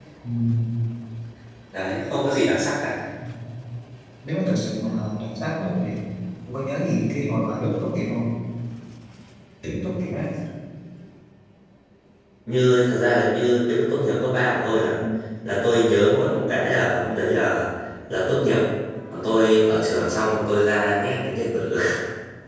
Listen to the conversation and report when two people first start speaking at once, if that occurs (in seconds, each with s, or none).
none